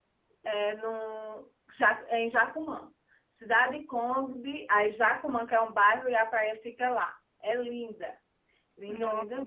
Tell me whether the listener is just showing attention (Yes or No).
No